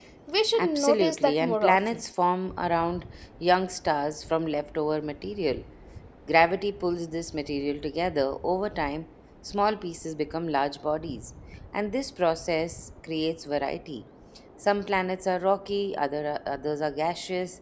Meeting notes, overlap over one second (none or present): present